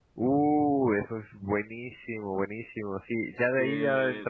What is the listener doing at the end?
listening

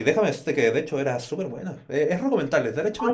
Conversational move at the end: taking over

